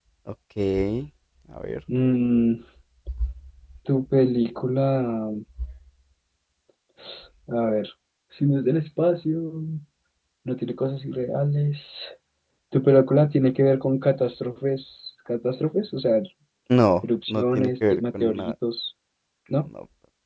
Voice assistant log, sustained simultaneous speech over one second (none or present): present